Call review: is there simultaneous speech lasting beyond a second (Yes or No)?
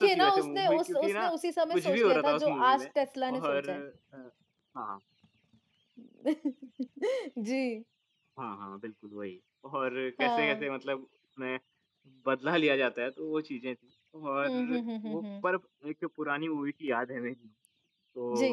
Yes